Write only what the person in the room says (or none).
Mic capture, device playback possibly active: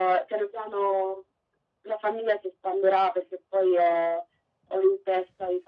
none